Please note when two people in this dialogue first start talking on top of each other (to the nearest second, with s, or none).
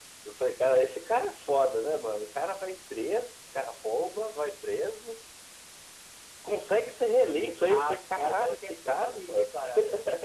8 s